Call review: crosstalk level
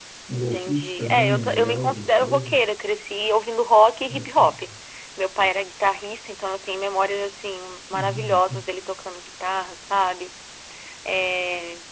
present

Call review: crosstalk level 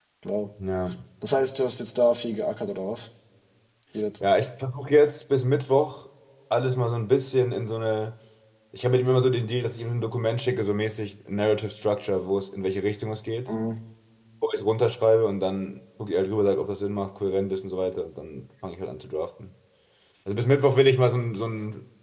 none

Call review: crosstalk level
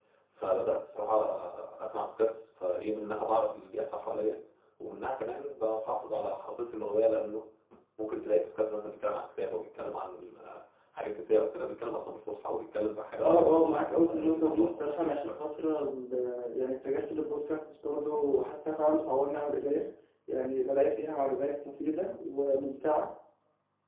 present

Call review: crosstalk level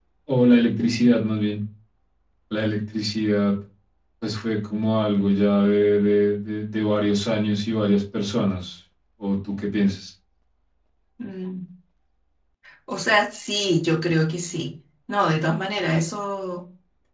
none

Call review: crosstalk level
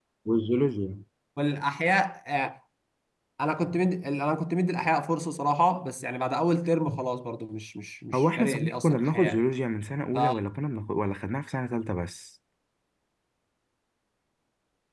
present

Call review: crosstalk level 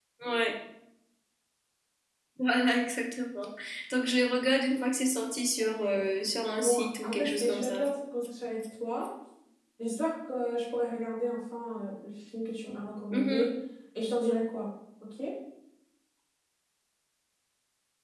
present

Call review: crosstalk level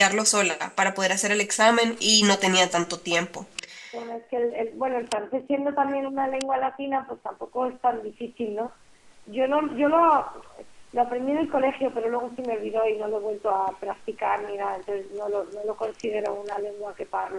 none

